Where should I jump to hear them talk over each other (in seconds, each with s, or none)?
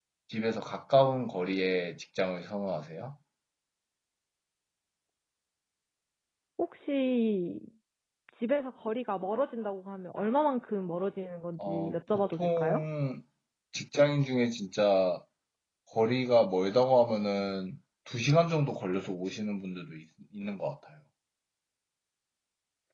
11.6 s